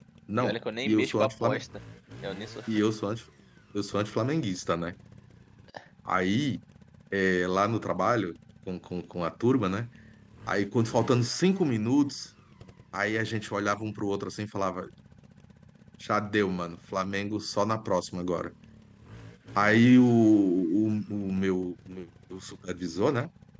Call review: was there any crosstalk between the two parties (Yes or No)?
Yes